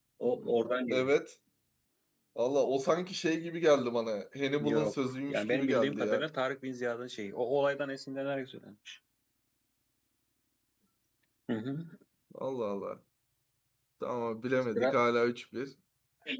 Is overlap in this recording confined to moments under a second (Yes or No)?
No